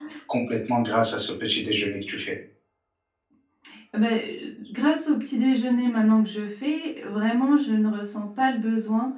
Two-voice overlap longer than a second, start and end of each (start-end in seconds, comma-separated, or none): none